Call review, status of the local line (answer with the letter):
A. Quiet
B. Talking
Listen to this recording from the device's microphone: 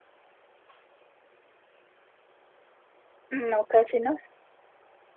B